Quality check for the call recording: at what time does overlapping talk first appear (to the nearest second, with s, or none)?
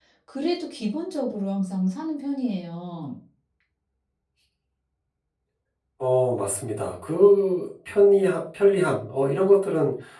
none